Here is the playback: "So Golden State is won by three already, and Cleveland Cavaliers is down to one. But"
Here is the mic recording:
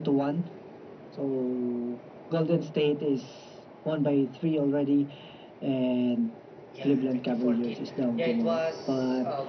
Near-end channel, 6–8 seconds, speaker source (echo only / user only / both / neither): both